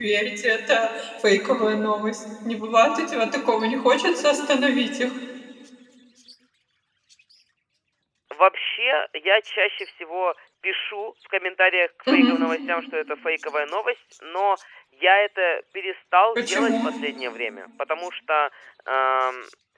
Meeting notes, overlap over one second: none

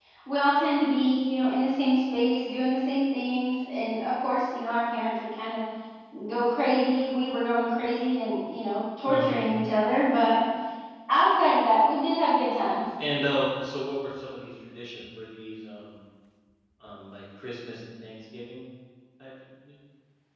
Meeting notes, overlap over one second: none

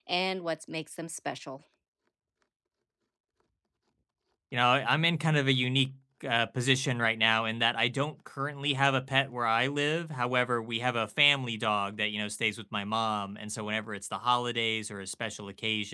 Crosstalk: none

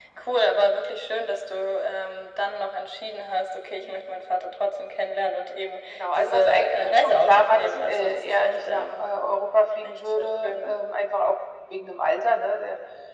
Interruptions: present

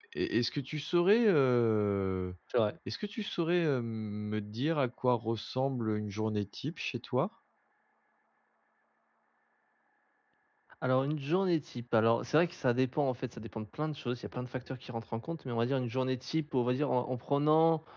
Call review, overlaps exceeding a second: none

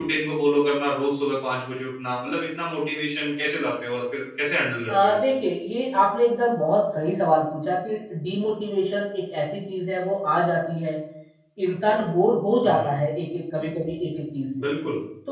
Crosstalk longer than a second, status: none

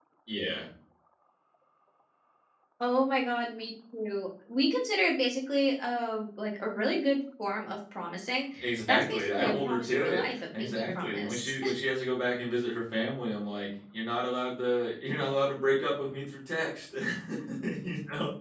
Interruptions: present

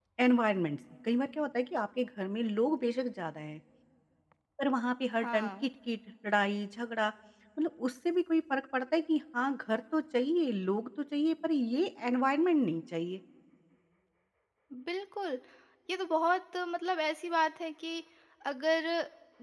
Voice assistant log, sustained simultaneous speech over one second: none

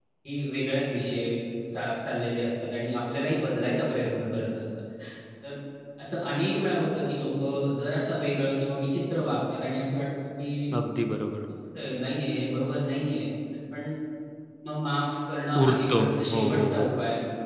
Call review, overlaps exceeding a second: present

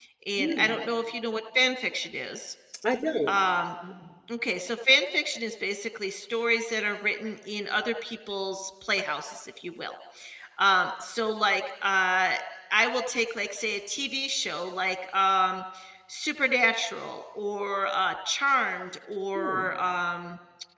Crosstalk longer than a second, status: none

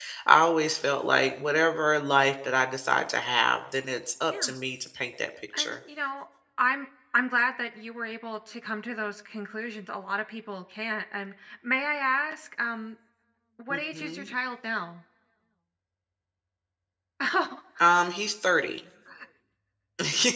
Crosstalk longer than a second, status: none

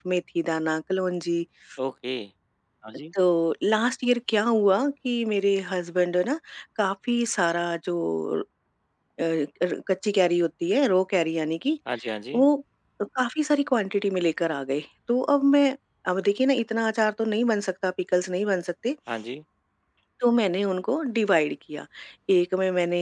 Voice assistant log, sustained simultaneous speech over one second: none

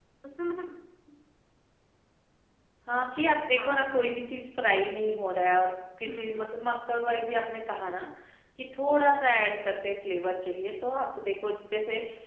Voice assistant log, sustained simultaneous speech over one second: none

